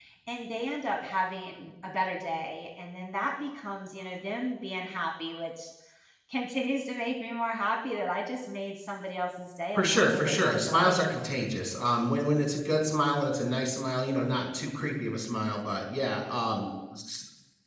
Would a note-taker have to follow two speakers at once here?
Yes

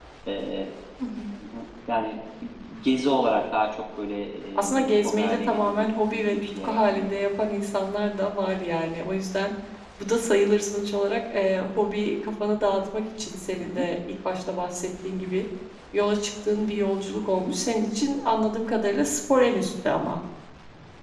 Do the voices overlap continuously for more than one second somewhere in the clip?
Yes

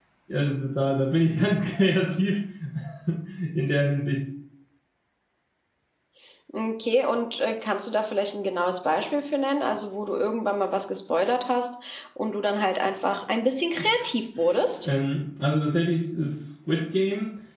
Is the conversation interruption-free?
Yes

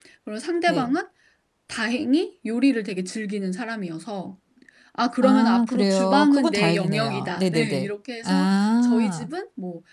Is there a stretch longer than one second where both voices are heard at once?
Yes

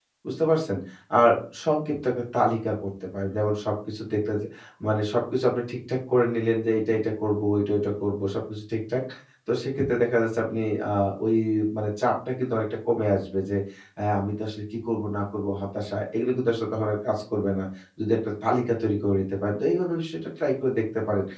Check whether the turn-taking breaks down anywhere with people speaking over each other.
No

